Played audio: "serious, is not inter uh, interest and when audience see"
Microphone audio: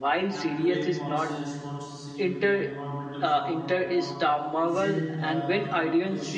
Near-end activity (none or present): present